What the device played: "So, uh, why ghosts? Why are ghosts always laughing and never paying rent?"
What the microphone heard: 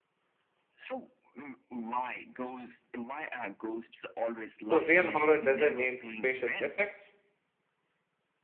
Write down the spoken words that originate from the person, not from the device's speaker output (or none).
So, real horror doesn't need special effects.